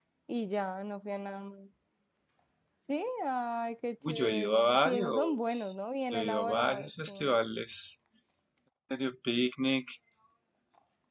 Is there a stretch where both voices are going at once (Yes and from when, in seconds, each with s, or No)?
Yes, from 4.0 s